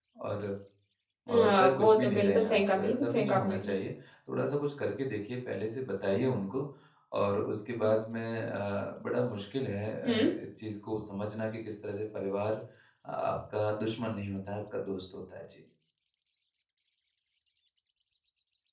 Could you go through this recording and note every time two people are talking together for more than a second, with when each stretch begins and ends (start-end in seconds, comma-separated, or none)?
1.4-3.7